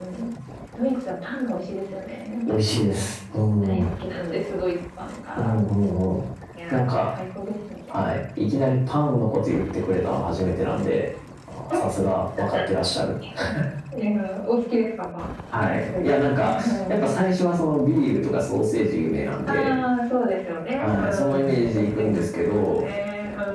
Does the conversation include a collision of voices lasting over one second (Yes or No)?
Yes